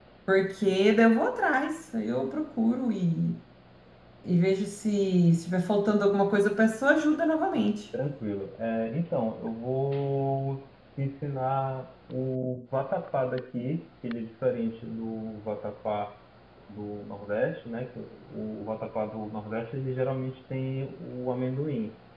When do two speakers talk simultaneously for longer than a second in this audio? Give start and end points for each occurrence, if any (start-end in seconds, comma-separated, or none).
none